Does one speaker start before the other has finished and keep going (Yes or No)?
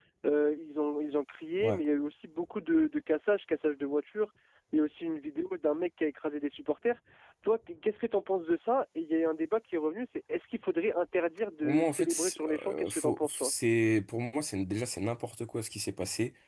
Yes